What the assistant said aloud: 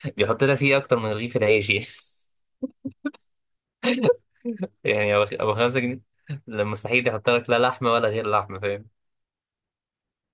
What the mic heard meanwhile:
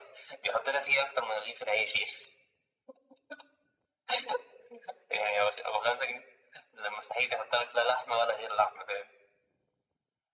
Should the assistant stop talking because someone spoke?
No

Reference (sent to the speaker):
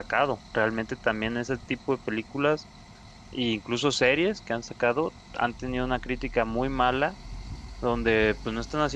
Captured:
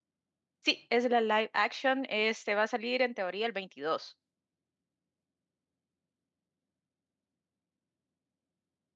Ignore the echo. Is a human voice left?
Yes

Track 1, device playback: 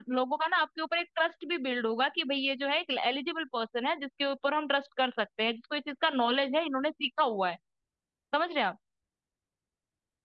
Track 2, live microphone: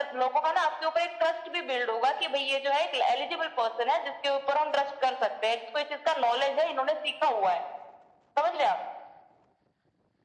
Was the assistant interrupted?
No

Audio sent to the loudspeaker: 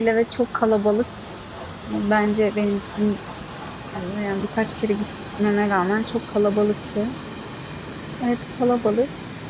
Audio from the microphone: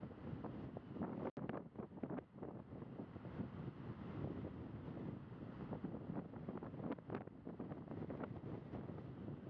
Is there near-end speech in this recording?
No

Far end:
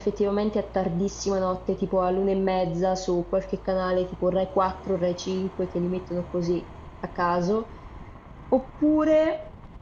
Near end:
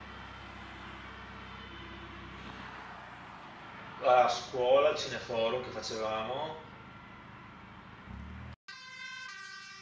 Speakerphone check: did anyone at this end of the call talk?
Yes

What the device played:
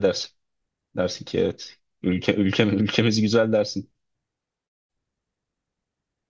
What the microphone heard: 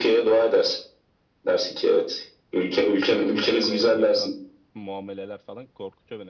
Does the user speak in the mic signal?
Yes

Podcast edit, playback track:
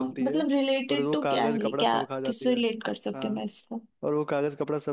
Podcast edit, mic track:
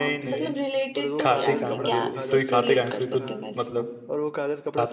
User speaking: Yes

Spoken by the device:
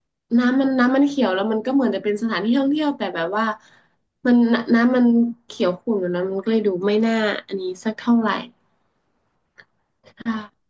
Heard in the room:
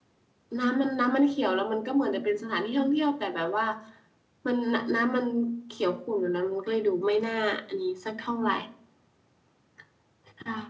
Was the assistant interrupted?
No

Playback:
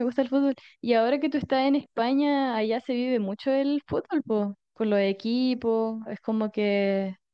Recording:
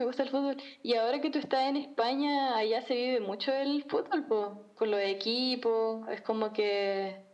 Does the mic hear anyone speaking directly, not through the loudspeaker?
No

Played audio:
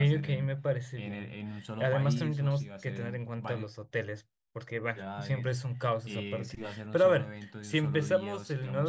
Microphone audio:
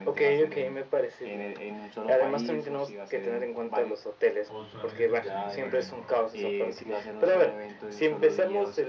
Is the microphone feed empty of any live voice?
No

